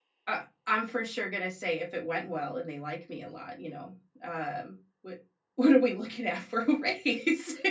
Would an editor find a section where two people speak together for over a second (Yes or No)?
No